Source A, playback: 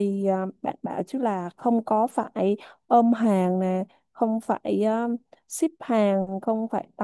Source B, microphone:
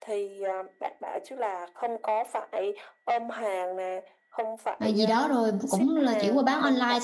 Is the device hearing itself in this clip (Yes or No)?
Yes